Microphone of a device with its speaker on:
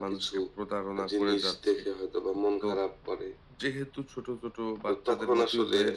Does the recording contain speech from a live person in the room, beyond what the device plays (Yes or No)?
Yes